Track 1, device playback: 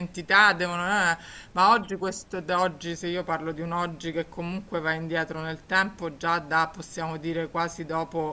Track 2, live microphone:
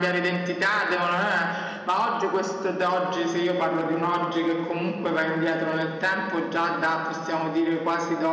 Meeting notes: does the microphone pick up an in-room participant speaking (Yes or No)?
No